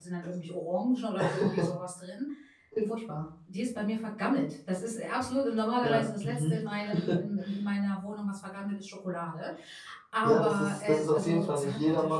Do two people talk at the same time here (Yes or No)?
Yes